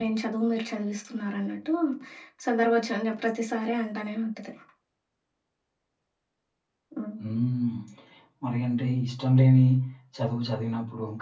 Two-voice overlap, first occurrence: none

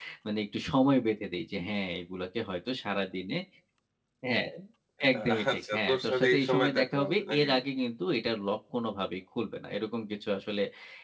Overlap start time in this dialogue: 5.1 s

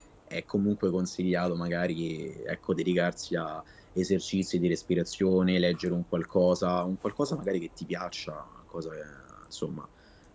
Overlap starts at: none

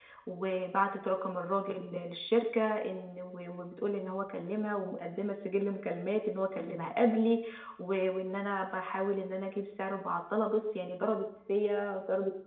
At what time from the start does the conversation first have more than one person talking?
none

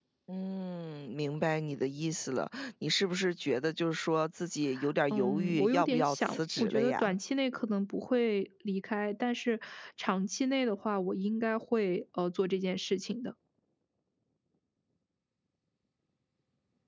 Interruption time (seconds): 5.1 s

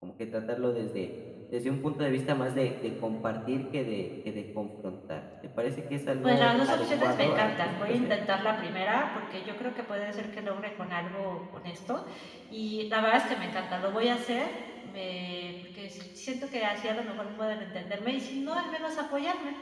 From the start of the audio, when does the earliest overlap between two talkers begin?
6.2 s

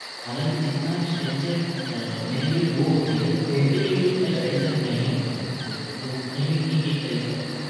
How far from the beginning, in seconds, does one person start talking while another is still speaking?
3.2 s

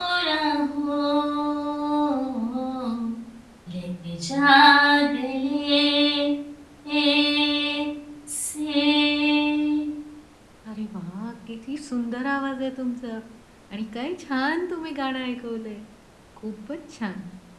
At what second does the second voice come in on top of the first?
none

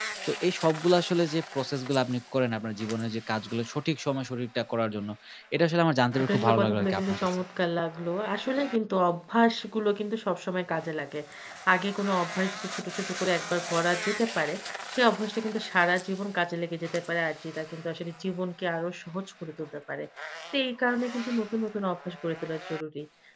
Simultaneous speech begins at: 6.2 s

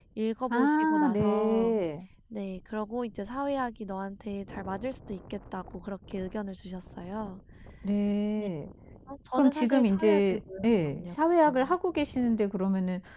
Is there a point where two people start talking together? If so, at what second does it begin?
0.5 s

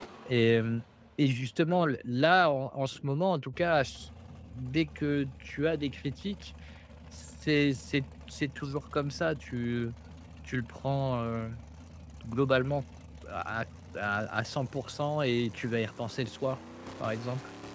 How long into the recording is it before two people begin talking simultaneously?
none

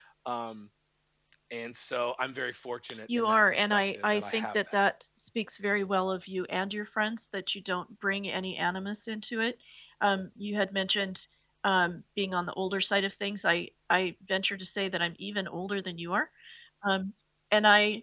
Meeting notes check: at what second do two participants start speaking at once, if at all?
3.1 s

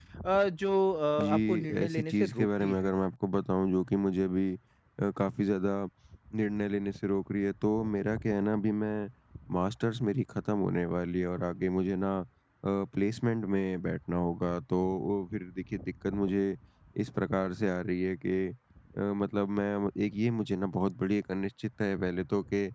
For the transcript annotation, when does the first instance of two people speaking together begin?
1.2 s

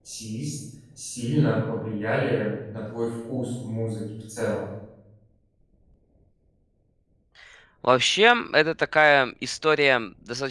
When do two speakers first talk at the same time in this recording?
none

